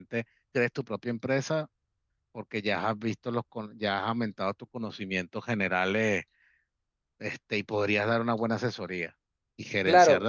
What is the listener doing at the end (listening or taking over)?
listening